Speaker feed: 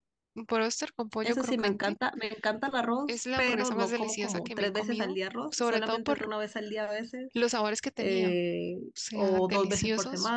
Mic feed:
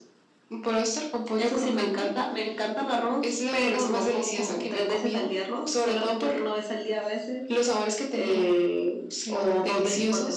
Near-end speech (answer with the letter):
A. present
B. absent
B